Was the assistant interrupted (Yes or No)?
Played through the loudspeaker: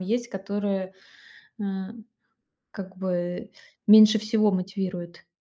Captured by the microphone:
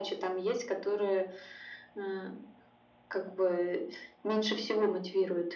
No